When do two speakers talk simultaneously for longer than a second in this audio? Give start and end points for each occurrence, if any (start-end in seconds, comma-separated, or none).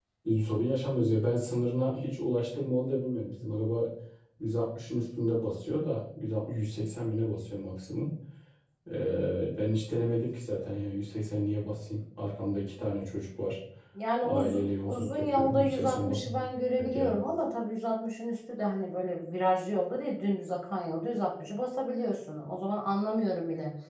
14.2-17.2